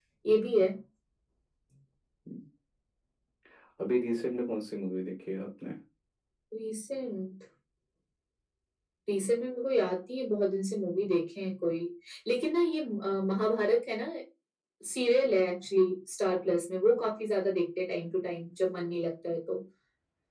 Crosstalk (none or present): none